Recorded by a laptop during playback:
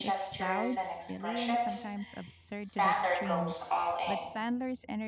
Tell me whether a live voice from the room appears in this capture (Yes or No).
Yes